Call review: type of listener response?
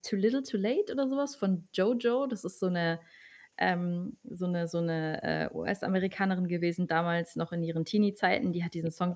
listening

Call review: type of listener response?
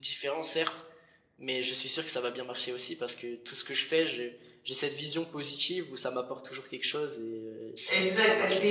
taking over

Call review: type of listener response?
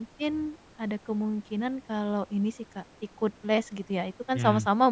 listening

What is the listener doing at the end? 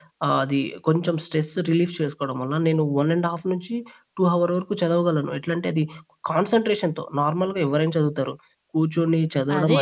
taking over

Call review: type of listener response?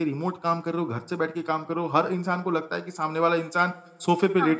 listening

